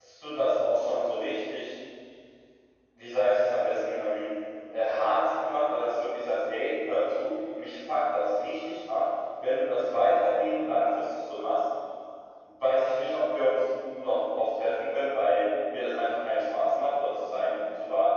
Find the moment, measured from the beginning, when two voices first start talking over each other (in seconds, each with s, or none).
none